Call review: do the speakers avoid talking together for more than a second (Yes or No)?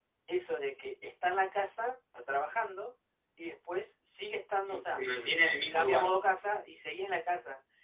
No